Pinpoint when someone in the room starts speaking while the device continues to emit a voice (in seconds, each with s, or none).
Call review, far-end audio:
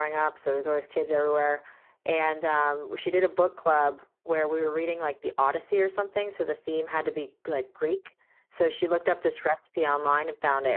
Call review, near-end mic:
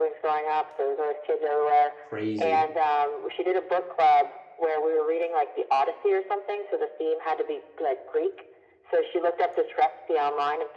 2.1 s